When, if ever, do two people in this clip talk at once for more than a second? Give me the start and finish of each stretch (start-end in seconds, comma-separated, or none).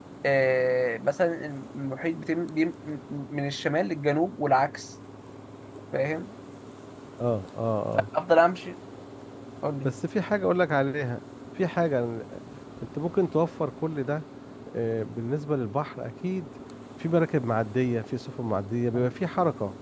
none